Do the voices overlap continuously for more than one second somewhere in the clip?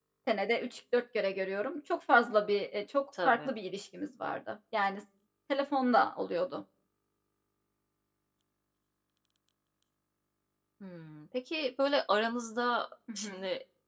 No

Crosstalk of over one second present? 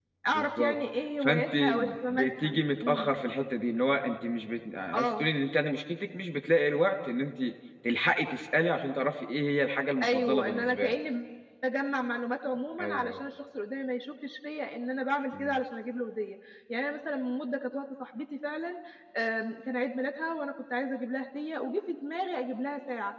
Yes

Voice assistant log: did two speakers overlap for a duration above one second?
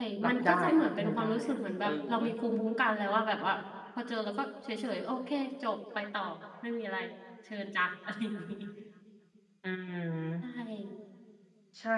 Yes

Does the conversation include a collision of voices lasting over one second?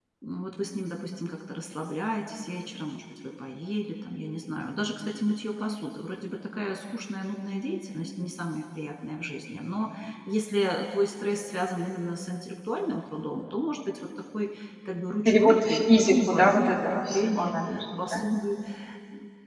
Yes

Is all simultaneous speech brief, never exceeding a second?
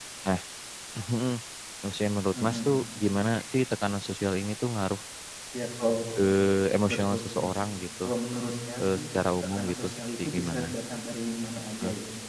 No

